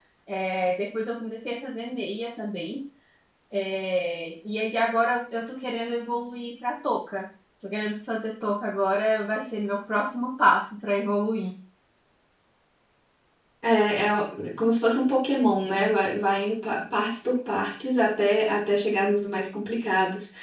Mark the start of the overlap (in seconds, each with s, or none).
none